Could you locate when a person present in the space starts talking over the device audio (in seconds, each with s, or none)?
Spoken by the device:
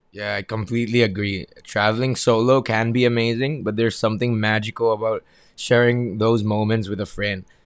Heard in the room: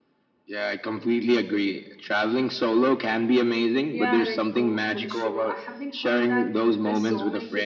3.9 s